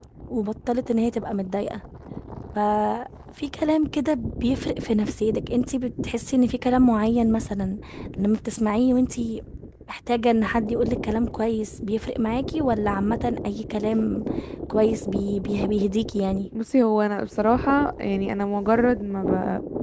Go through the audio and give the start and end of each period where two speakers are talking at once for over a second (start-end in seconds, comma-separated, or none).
none